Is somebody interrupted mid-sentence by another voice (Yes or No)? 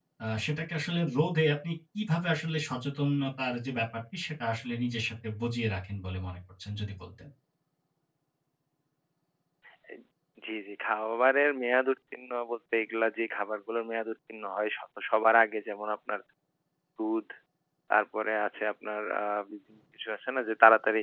No